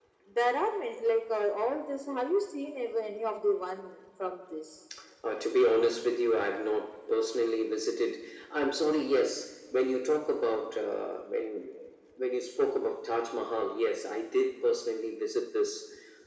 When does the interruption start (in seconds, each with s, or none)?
none